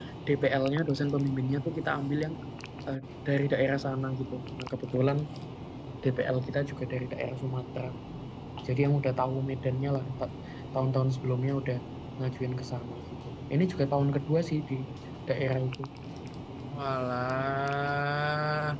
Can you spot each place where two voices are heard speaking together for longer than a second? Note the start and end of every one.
none

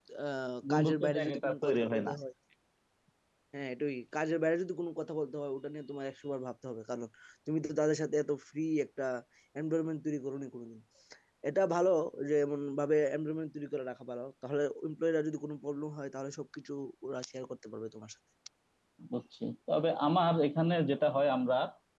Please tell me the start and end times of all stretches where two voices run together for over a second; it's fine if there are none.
0.7-2.1

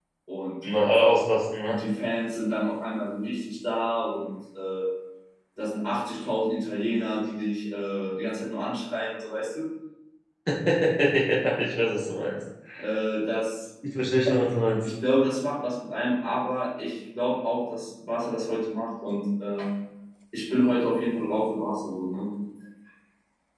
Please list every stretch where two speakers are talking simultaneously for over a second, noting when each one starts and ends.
none

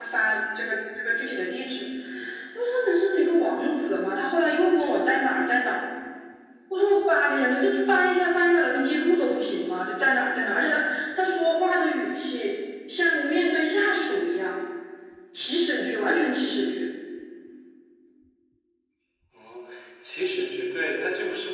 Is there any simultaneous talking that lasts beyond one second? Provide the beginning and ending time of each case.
none

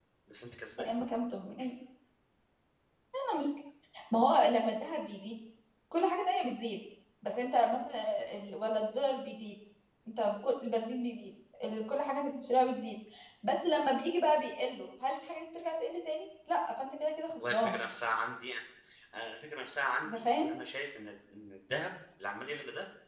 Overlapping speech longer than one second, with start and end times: none

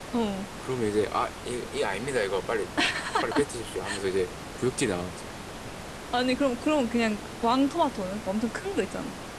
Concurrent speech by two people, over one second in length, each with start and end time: none

